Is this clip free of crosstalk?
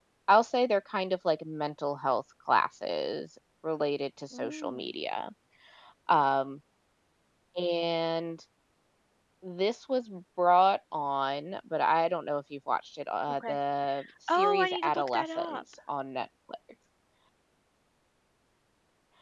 No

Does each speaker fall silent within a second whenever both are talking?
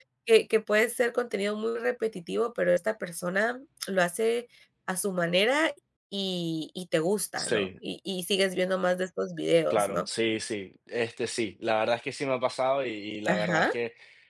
Yes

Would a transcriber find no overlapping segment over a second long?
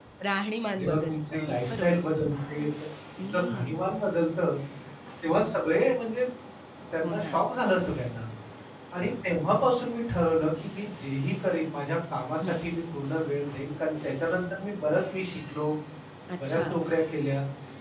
No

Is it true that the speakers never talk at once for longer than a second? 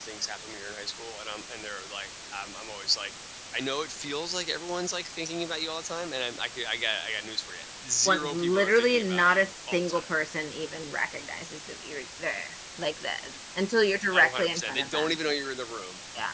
No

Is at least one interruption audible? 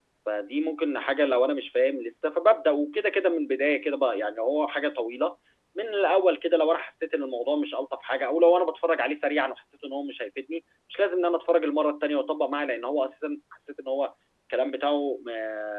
No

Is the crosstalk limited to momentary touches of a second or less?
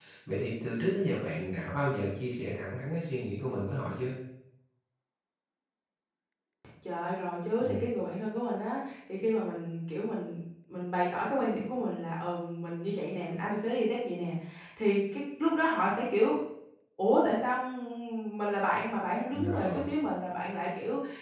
Yes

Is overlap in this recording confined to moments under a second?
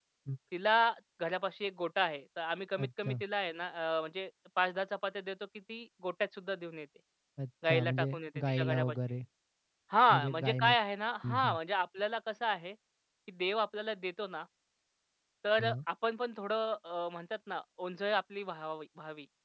No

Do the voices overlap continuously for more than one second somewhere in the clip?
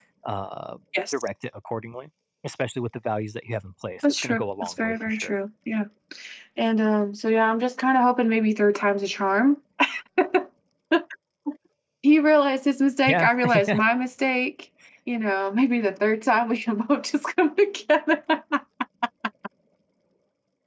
Yes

